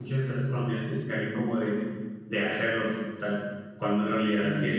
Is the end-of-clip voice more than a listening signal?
No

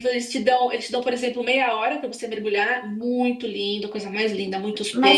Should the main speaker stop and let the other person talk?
Yes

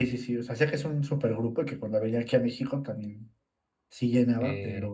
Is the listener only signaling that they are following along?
No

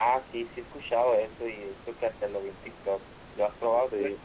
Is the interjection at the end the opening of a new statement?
Yes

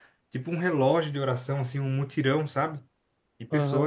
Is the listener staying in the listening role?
No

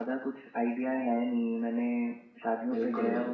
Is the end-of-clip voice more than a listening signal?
No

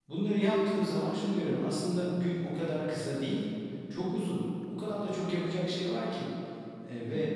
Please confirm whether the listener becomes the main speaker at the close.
No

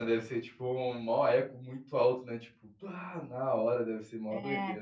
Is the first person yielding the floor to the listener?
Yes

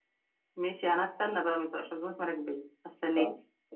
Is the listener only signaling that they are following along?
No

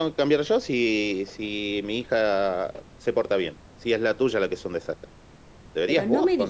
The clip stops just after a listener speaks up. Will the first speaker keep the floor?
No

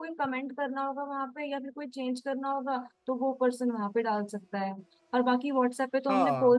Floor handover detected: No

